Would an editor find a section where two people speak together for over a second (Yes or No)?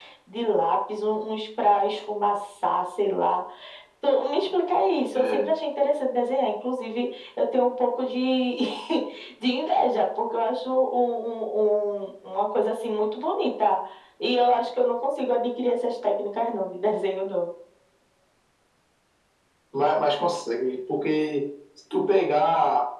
No